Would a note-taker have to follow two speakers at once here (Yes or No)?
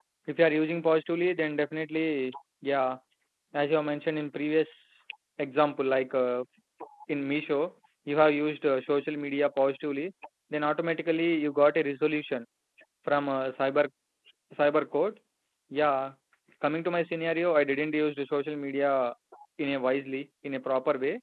No